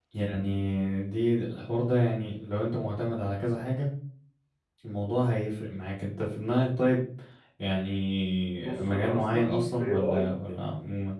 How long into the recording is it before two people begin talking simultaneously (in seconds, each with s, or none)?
8.5 s